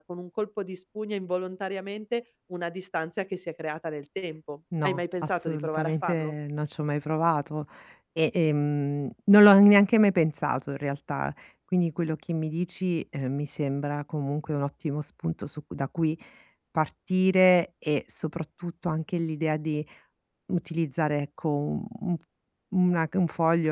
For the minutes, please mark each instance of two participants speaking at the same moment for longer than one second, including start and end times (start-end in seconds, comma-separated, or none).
4.8-6.3